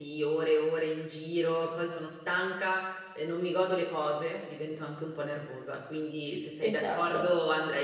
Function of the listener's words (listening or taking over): listening